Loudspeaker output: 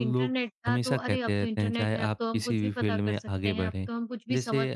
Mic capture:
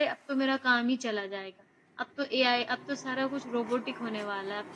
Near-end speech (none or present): present